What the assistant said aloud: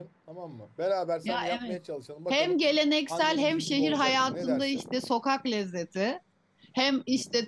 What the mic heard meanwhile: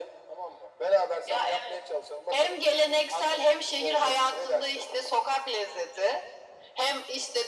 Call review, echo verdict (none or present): present